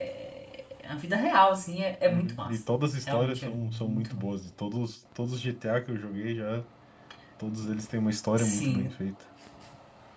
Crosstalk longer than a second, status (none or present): present